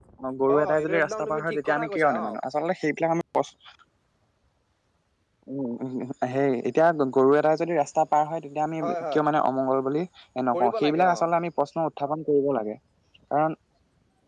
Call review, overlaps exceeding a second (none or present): present